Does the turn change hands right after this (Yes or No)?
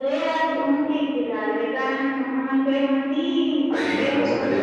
Yes